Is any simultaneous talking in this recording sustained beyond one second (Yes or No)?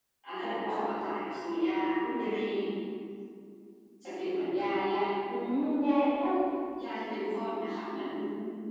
No